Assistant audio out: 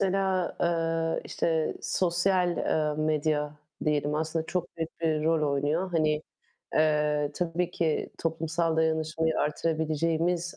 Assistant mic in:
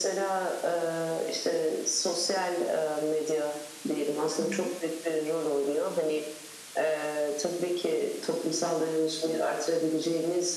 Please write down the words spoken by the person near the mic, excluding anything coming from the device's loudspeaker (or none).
Hı hı.